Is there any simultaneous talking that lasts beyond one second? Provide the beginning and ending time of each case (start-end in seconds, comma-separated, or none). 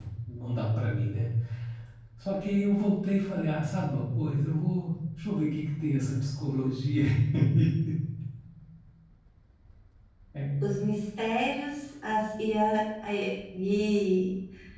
none